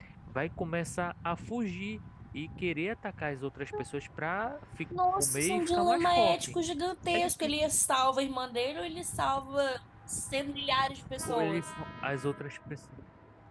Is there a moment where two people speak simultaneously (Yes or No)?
Yes